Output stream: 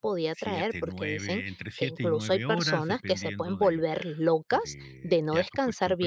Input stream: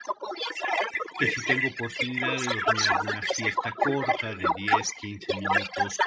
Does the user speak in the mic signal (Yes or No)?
Yes